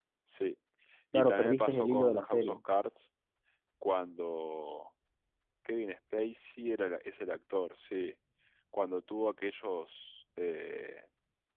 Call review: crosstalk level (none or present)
present